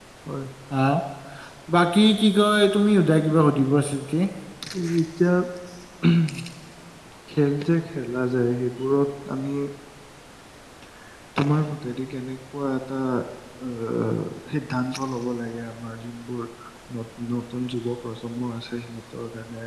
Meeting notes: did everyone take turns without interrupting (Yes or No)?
Yes